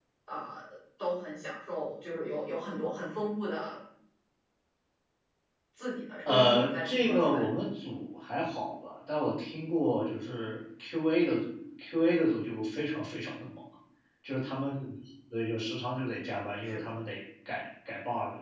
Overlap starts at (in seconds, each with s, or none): 6.2 s